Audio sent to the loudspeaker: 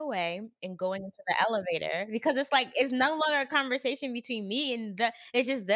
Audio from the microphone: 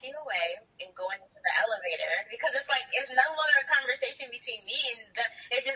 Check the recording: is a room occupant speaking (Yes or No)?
No